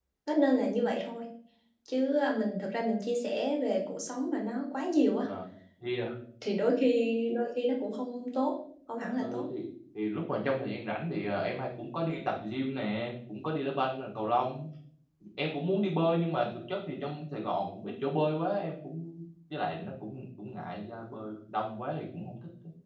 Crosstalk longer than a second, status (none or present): none